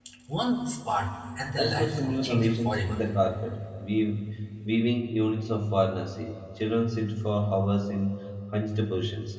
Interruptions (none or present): present